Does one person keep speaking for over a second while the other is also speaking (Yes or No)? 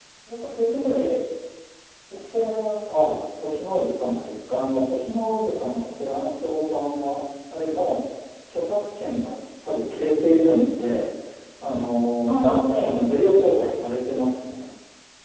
No